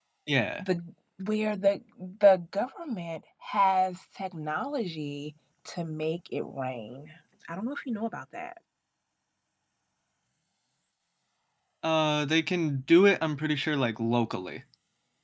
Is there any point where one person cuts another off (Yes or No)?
No